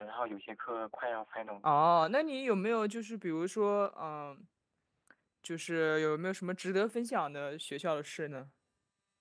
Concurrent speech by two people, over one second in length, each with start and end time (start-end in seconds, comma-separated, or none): none